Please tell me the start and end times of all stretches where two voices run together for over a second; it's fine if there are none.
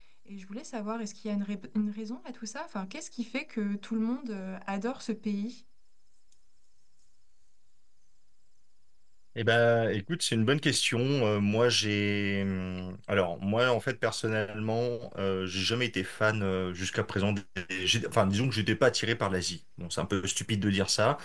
none

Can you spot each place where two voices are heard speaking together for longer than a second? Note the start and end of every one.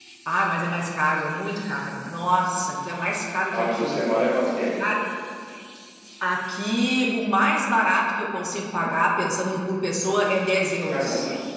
none

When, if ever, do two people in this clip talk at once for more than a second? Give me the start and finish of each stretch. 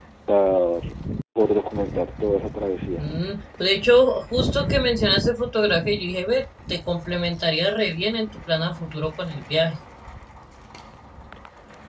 none

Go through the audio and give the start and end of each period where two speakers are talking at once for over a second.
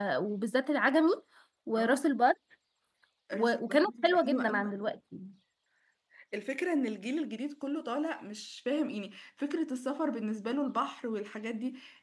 3.3-4.7

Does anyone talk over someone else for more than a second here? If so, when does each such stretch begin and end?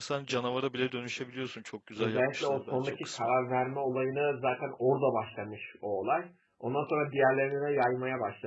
2.0-3.3

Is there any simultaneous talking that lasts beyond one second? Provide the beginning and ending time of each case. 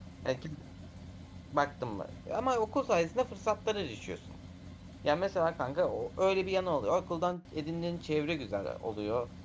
none

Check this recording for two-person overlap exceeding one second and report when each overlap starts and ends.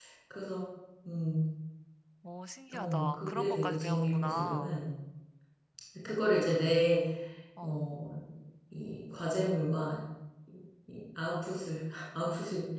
2.7-4.7

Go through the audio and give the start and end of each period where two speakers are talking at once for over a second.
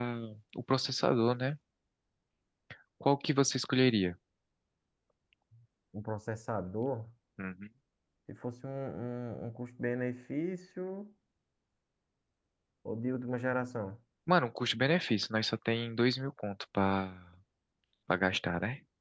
none

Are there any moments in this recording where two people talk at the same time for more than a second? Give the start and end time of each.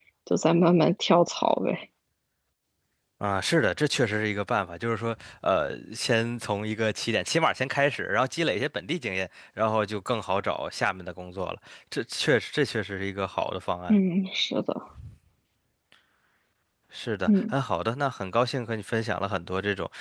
none

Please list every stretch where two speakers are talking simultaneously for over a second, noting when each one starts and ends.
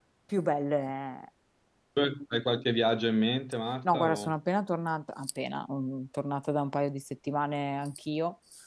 none

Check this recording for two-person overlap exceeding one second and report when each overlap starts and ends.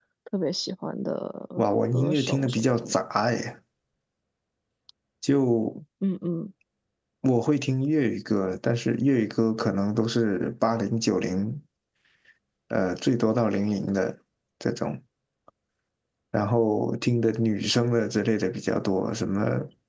1.6-2.9

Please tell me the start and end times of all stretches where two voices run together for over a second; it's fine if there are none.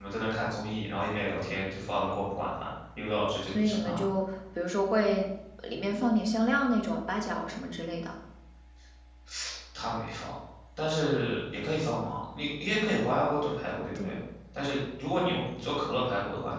none

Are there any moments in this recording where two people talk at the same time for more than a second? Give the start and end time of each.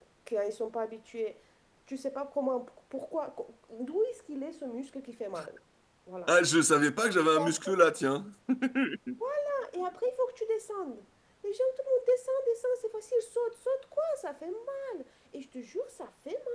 none

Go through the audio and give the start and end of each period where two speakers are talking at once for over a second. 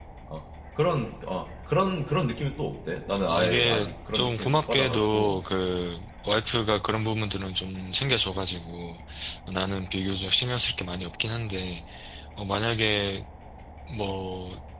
3.3-5.4

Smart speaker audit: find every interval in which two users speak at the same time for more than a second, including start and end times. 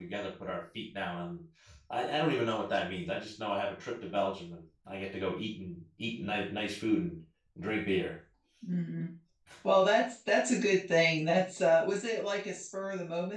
none

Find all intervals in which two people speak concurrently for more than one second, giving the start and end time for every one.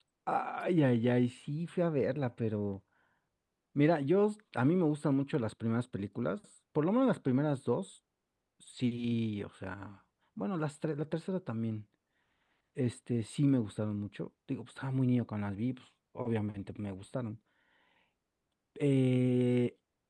none

